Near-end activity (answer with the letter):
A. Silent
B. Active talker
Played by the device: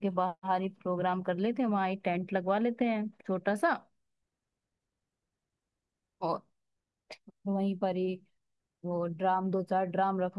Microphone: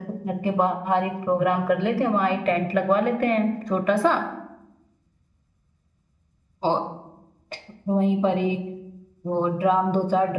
A